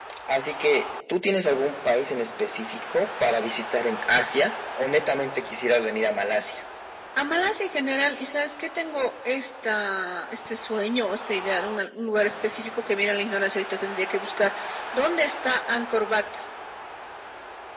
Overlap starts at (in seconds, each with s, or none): none